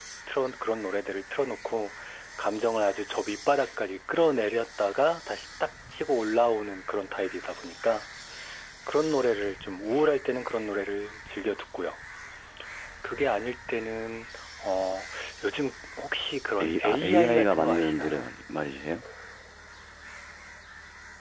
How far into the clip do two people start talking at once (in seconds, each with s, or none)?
16.6 s